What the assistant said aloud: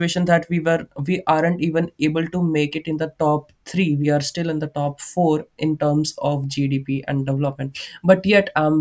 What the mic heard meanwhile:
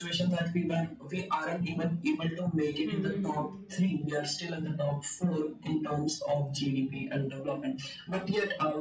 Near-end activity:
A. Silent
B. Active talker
B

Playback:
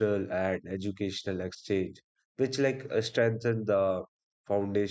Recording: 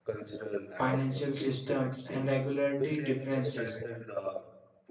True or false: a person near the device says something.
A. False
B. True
B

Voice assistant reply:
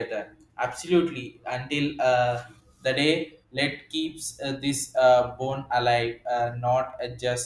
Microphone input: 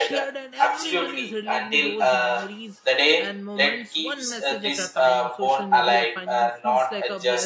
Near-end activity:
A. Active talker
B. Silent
A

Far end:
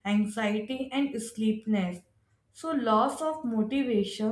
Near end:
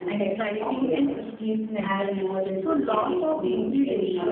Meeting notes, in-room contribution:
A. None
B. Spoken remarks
B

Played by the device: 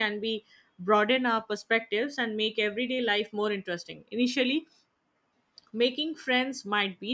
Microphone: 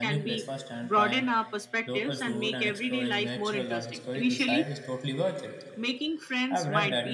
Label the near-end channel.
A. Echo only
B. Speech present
B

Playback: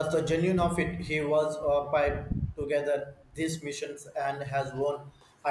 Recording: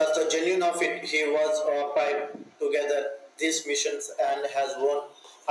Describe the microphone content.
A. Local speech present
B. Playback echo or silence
B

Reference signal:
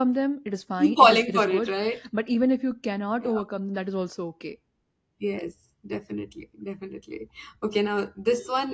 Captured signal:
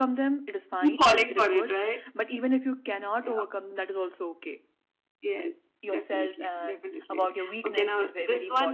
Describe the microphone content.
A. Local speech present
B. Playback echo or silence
A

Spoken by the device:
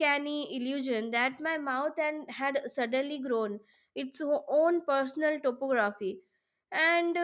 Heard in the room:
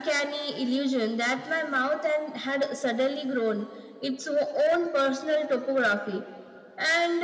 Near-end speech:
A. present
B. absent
B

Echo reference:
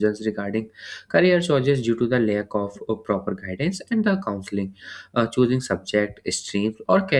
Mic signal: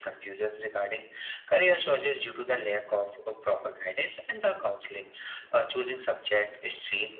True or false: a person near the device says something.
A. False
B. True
A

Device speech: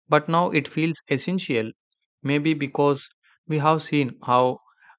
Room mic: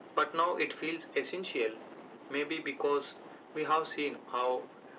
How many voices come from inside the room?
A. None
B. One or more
A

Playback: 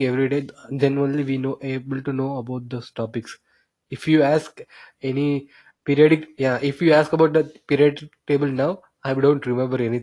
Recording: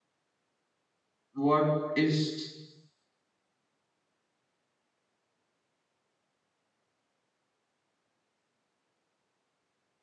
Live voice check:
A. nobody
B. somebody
B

